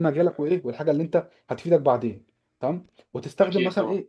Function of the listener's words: listening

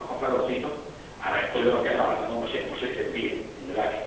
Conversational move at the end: listening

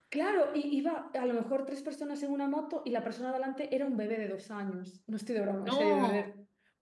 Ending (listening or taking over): listening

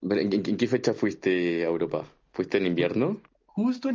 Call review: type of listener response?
taking over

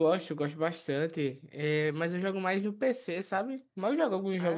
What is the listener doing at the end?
listening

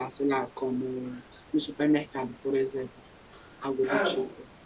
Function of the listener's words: taking over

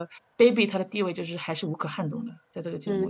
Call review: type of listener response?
taking over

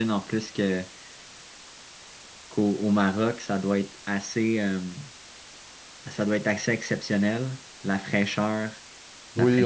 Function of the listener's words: taking over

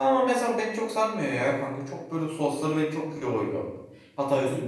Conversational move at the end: listening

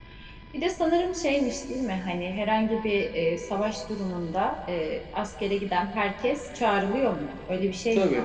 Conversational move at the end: taking over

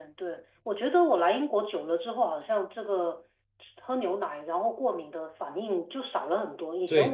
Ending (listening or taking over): listening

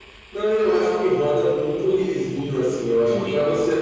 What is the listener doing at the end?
listening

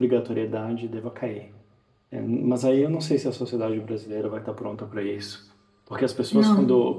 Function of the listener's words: listening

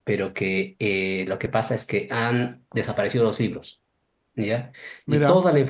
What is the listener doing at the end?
listening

